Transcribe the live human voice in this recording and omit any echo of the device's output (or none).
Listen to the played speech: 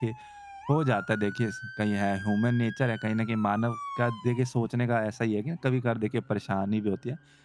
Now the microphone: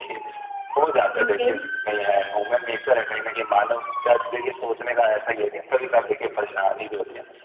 ओके,